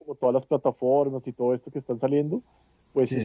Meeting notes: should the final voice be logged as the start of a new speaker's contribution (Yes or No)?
No